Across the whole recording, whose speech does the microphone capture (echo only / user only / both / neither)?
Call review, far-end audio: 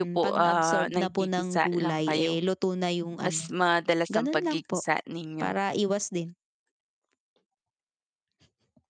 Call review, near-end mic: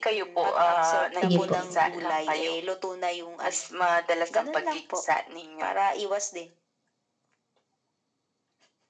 both